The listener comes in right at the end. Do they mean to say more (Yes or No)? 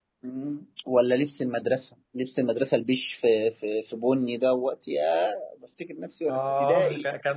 Yes